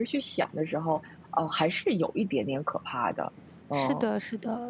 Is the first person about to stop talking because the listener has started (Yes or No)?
Yes